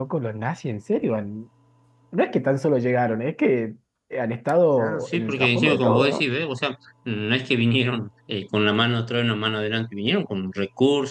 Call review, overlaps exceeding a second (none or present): present